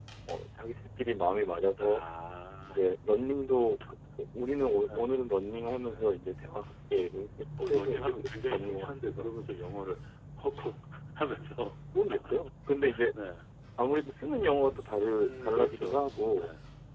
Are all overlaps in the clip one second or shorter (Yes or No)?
No